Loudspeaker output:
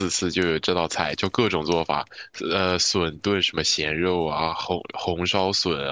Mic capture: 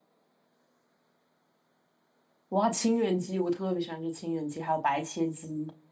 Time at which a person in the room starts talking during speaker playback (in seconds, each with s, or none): 2.5 s